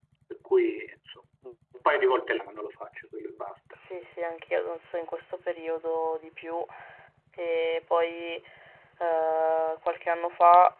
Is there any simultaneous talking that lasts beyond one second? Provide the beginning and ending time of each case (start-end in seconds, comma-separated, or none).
none